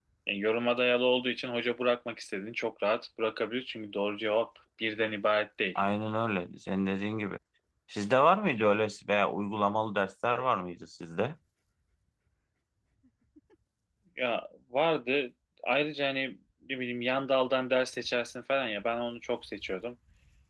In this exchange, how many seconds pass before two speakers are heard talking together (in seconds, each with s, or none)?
none